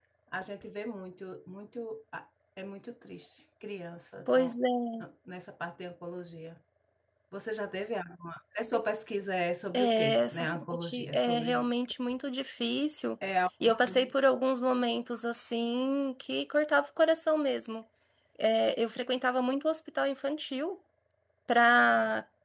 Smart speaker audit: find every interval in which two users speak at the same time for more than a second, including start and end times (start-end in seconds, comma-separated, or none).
9.7-11.7